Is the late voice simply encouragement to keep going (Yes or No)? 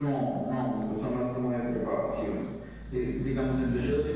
Yes